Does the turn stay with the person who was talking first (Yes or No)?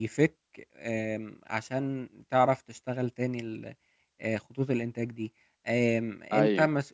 Yes